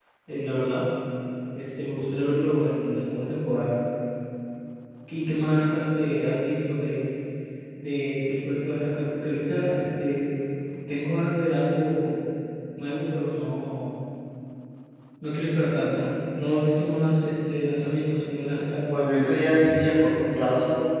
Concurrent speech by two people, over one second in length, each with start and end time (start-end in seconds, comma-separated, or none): none